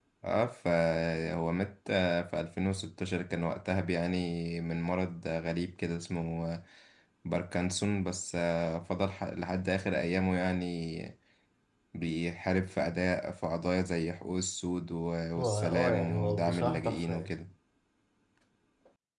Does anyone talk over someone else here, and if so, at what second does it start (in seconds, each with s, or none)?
15.4 s